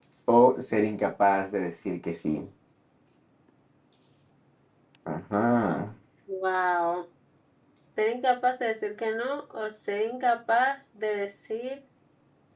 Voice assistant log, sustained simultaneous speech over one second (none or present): none